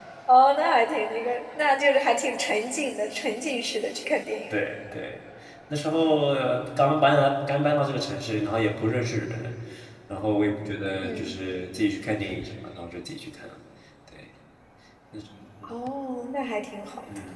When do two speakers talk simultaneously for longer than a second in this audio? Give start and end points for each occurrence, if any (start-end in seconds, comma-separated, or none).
none